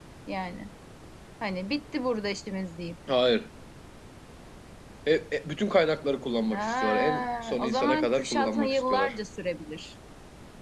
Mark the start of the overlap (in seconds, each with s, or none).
6.5 s